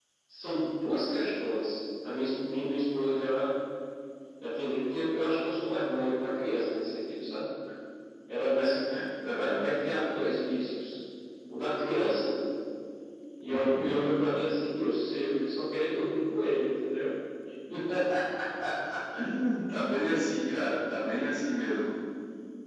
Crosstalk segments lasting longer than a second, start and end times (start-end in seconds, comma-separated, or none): none